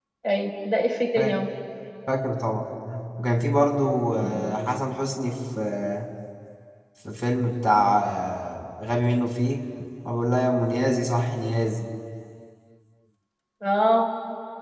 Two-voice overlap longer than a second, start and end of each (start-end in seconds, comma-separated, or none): none